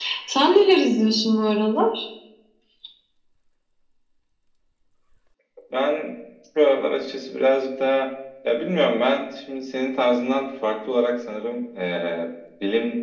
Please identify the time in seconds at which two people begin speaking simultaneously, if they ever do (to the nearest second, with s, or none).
none